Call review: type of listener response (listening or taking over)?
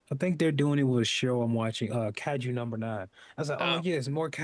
listening